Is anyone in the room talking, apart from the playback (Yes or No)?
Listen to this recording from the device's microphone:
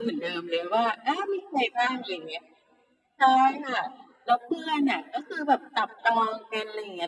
No